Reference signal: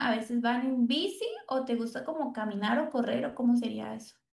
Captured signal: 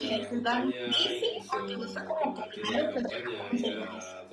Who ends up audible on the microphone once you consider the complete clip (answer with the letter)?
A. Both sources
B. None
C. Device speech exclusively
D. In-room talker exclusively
A